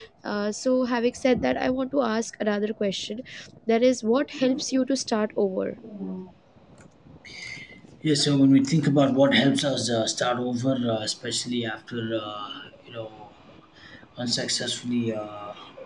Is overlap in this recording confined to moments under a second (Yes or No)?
Yes